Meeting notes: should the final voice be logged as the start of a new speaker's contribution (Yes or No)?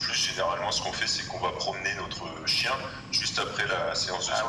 Yes